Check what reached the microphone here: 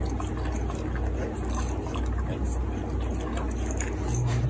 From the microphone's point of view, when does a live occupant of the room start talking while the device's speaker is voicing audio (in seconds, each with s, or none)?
none